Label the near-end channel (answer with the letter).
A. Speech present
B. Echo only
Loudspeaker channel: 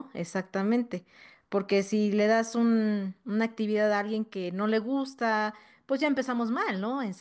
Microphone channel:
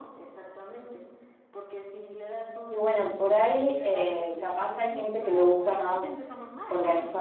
A